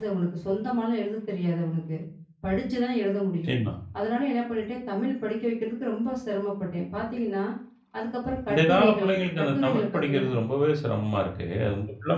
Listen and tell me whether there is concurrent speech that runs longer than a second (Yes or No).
Yes